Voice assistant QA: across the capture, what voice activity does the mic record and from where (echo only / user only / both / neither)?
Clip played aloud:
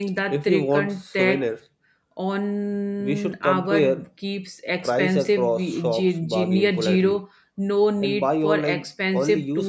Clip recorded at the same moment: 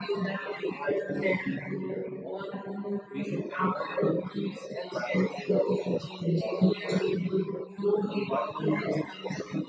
echo only